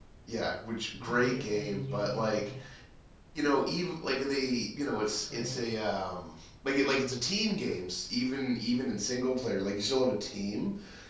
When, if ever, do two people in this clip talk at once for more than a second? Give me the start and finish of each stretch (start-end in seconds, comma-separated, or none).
1.1-2.5